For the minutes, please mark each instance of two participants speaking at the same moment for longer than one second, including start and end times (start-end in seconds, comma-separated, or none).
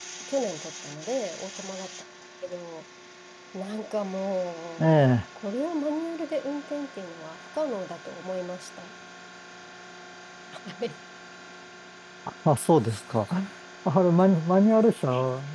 none